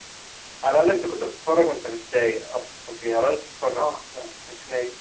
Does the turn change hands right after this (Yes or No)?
No